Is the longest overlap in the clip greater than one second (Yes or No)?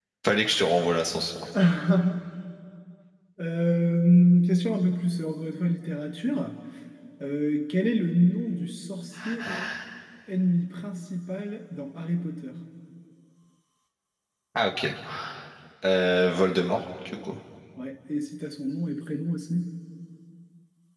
No